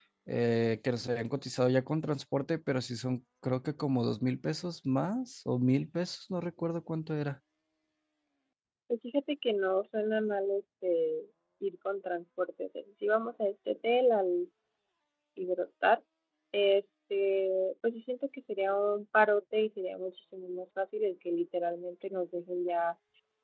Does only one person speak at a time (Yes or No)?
Yes